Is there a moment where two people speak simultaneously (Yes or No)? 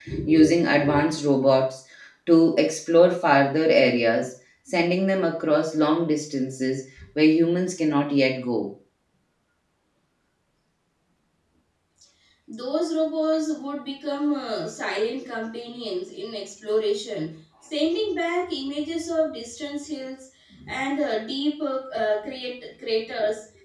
No